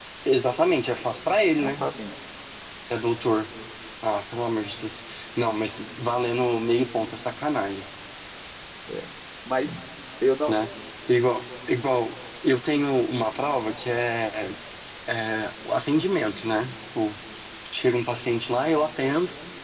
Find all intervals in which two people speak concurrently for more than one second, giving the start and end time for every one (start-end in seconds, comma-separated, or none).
none